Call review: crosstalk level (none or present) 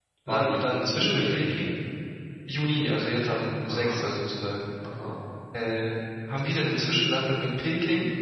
present